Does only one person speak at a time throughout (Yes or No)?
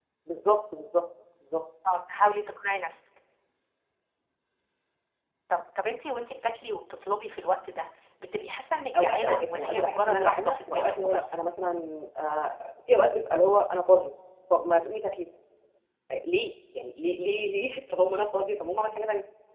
No